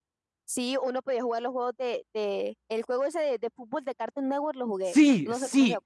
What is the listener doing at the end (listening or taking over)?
taking over